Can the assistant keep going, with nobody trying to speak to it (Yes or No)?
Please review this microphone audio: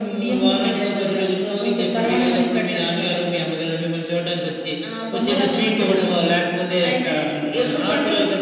Yes